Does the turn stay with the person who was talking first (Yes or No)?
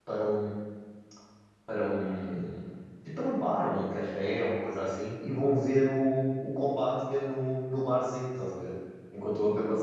Yes